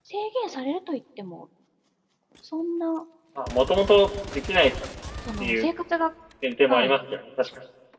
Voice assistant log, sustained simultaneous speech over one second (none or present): none